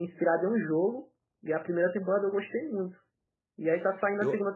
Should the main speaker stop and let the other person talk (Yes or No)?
No